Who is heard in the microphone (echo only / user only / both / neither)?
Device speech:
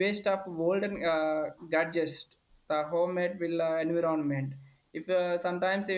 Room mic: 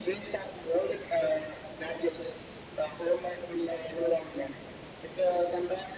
echo only